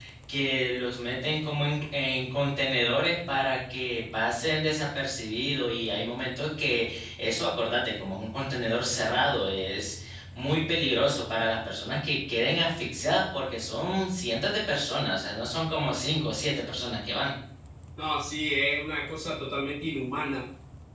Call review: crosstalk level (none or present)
none